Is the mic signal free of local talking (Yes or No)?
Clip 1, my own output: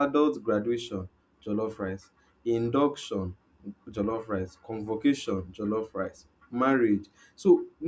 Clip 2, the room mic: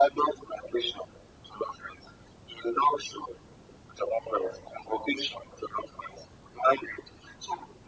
Yes